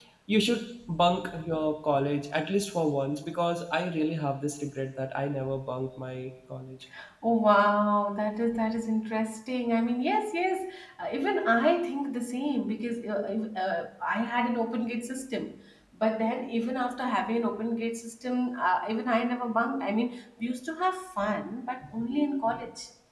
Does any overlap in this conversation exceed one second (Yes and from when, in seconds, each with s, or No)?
No